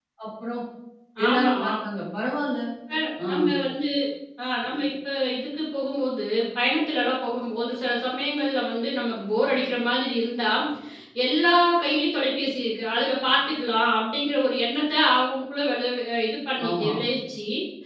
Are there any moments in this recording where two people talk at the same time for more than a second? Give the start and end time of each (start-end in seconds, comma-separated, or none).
none